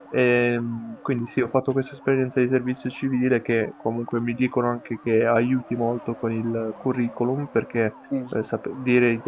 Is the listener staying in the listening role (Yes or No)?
Yes